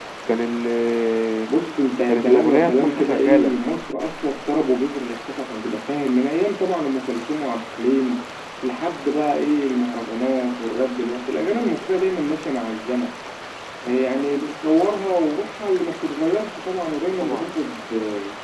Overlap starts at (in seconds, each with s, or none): 2.0 s